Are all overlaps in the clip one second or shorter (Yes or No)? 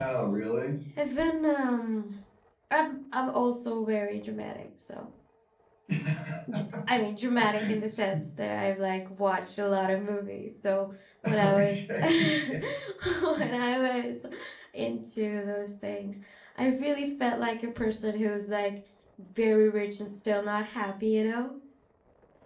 No